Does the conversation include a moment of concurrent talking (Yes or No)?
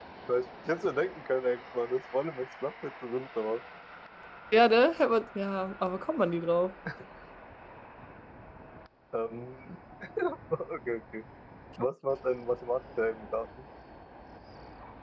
No